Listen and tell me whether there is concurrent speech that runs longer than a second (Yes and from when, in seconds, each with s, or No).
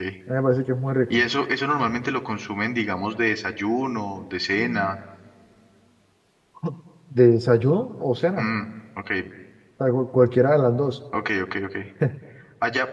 No